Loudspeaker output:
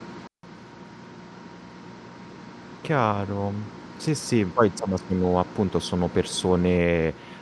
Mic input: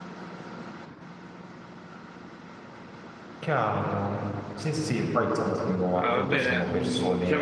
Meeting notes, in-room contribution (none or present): present